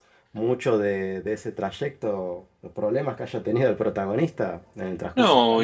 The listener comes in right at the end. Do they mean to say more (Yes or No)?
Yes